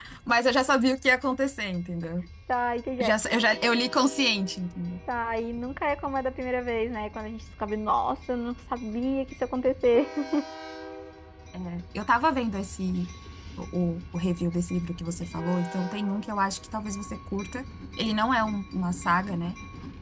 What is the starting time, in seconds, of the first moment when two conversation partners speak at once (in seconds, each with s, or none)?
none